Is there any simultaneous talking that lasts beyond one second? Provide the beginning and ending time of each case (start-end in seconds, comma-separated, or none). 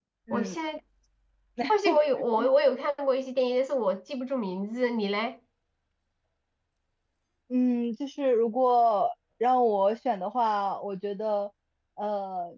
none